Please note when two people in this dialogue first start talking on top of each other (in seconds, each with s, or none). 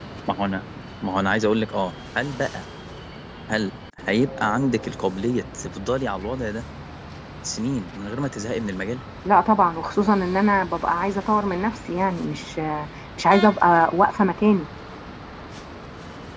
none